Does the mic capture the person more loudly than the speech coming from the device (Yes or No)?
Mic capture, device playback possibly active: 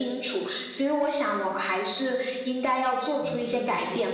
No